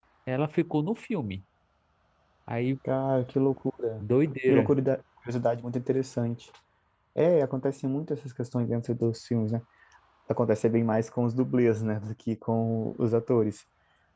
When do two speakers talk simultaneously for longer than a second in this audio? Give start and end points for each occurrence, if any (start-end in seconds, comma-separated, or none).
none